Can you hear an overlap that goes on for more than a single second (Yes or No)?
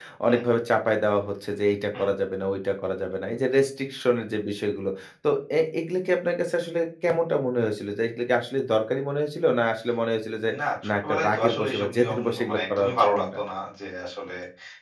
Yes